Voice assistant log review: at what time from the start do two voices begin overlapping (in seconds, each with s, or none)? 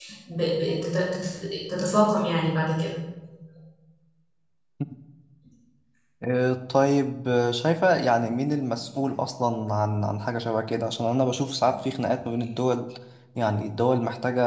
none